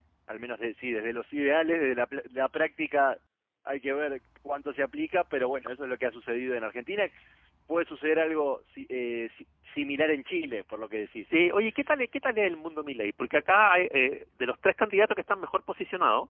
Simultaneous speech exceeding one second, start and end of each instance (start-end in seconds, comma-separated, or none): none